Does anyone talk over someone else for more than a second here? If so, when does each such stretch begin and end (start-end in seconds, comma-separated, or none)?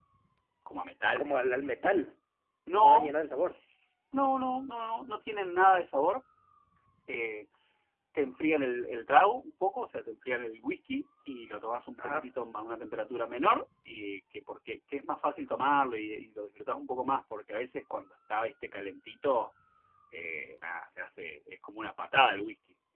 none